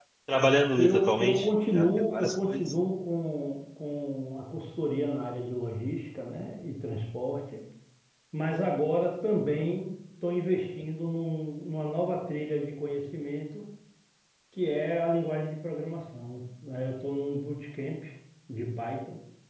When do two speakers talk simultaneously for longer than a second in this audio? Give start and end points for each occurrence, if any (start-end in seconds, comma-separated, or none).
0.8-2.7